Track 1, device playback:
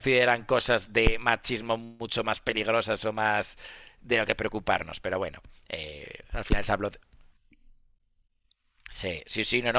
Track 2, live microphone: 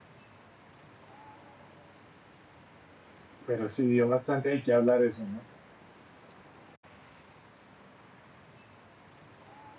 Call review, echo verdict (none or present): none